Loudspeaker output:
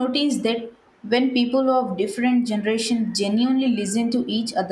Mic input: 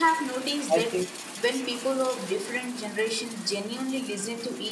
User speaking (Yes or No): Yes